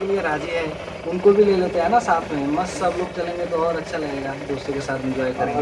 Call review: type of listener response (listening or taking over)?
taking over